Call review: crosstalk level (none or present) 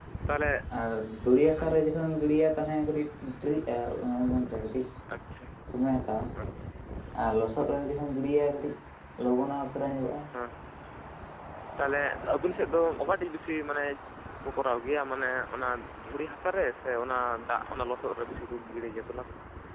none